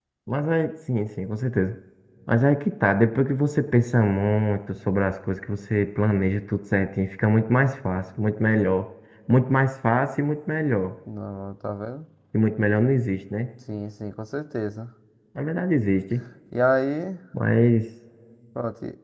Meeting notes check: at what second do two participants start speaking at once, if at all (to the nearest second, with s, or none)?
none